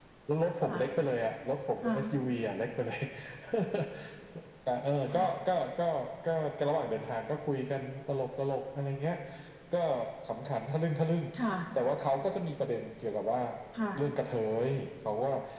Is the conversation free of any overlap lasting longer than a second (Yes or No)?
Yes